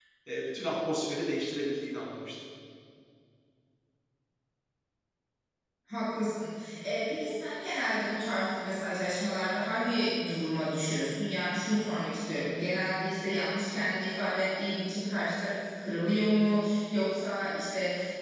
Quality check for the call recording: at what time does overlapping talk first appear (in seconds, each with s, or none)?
none